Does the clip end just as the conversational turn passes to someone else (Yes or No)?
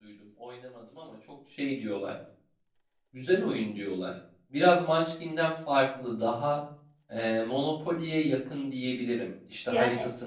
No